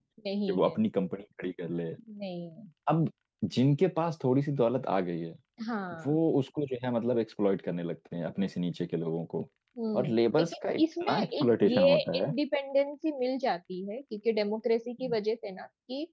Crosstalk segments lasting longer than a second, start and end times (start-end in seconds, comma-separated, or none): 9.9-12.1